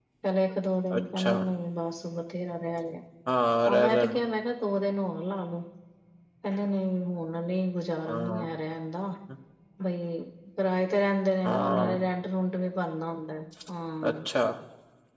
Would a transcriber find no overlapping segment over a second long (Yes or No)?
Yes